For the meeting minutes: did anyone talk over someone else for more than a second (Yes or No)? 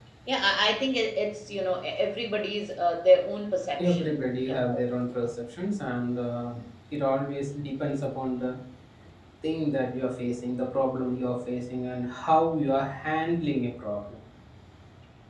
No